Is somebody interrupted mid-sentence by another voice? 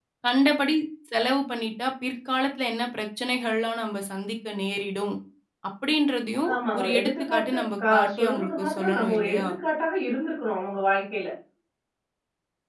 Yes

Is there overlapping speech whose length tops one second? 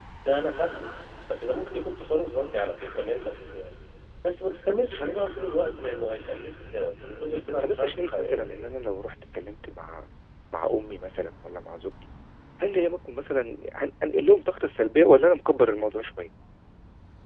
Yes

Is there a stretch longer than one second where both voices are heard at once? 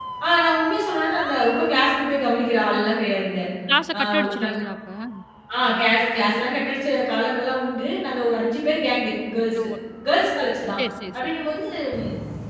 No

